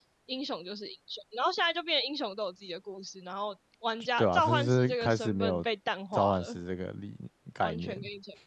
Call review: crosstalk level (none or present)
present